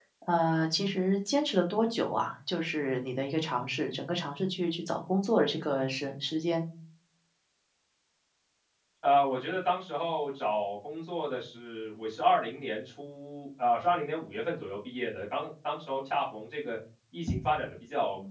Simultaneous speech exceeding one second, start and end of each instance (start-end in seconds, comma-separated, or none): none